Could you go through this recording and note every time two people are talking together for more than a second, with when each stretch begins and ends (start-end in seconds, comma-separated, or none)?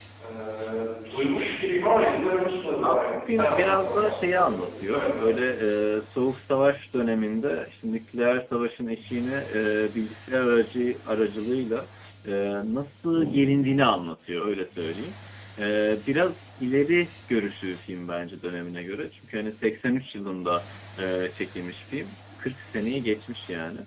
2.8-5.4